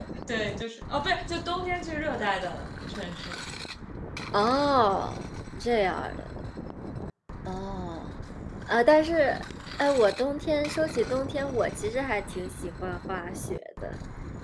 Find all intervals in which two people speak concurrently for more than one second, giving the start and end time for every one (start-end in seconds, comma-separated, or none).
none